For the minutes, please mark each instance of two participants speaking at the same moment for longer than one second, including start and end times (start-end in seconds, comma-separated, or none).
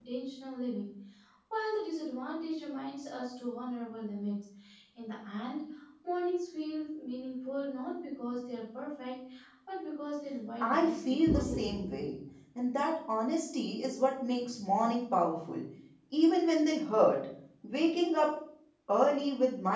10.6-11.9